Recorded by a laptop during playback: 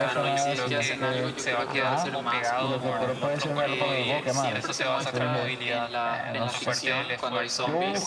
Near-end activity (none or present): present